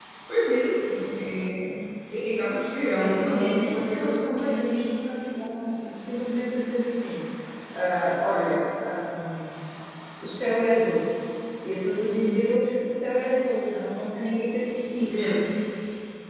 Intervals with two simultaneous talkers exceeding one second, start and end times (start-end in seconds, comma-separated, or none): 3.0-4.8